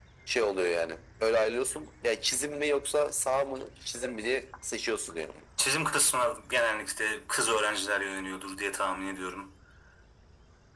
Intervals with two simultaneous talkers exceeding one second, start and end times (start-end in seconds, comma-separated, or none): none